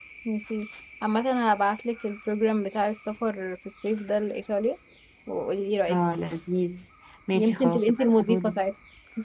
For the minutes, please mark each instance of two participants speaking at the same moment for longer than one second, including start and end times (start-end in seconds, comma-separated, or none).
7.3-8.6